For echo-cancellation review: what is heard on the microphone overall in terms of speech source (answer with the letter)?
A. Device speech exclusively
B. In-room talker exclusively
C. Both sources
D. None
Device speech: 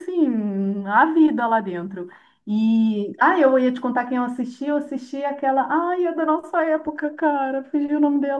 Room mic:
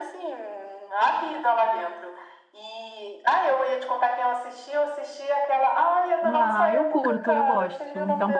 C